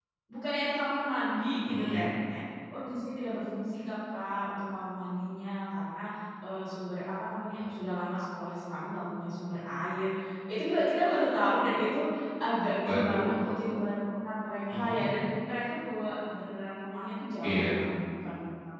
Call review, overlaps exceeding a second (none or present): none